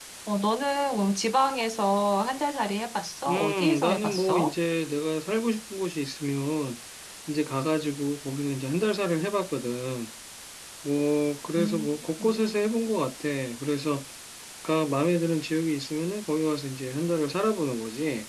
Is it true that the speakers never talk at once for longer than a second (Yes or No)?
No